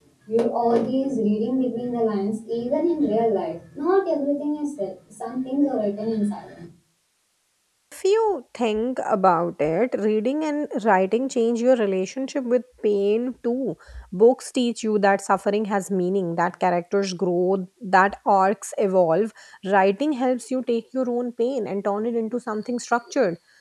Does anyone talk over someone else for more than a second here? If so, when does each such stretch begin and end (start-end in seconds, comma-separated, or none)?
none